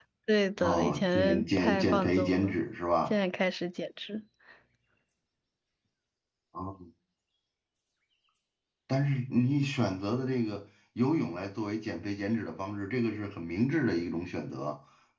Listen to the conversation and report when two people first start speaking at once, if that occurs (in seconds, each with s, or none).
0.6 s